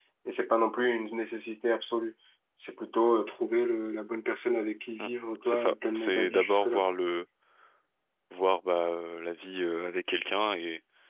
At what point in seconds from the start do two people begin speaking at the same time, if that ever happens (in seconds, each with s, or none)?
5.5 s